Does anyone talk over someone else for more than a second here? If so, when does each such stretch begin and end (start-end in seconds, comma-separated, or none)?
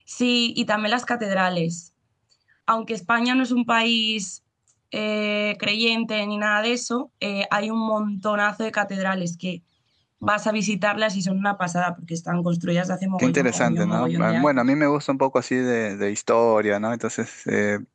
13.2-14.7